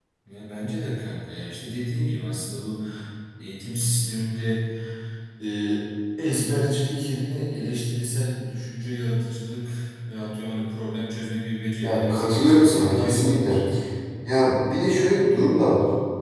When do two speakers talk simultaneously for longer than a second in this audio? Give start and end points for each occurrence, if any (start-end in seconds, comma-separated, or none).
11.8-13.6